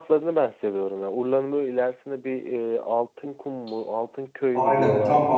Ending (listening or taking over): taking over